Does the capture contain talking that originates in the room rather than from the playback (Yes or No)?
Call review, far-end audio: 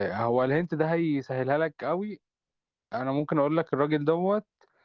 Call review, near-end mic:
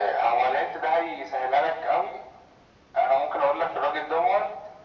No